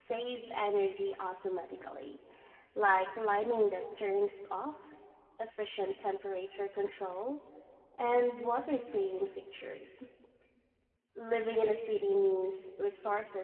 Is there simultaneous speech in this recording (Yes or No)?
No